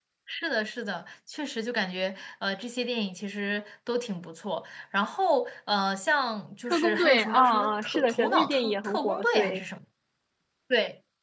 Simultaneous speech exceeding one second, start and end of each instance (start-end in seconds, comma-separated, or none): 6.7-9.6